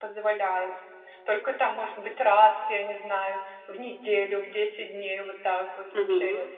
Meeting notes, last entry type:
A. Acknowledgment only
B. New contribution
B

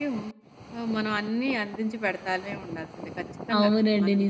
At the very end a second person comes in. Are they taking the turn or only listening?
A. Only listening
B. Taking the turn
B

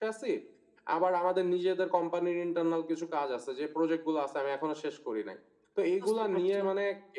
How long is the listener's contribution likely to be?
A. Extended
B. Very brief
B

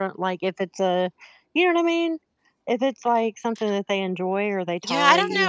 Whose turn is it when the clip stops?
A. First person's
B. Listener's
B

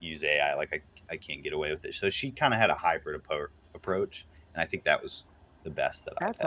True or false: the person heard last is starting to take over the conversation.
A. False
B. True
B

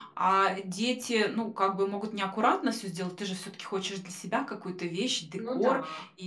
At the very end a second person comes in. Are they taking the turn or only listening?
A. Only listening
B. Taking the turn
A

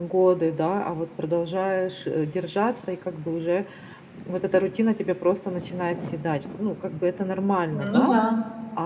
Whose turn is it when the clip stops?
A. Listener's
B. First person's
B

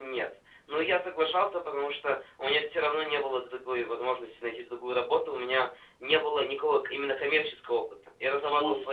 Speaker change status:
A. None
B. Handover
A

